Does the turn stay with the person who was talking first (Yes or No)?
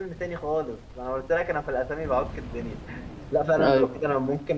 Yes